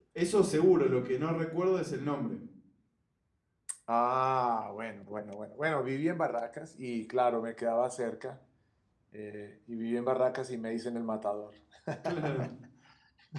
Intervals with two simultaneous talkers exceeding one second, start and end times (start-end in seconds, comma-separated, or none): none